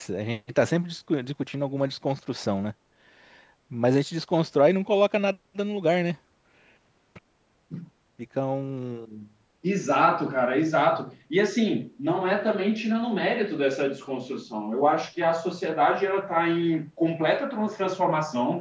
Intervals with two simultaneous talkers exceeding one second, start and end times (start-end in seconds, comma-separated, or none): none